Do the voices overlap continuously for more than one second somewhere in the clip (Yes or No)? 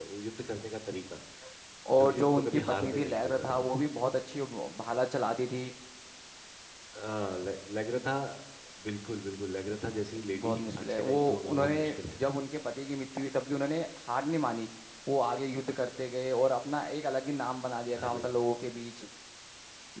Yes